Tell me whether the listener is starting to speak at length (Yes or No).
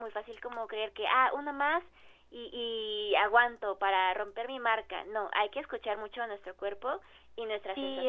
Yes